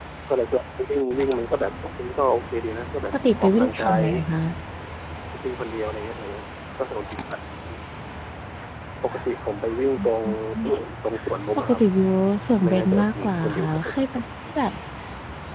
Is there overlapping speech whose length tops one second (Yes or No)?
Yes